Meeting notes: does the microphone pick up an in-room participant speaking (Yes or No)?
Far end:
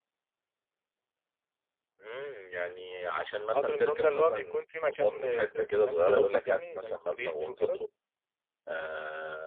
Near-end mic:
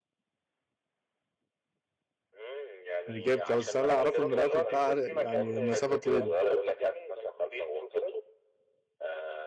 Yes